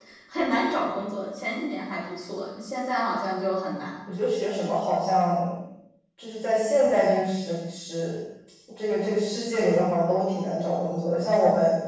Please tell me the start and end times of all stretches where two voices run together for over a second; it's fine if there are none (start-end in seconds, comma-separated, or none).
none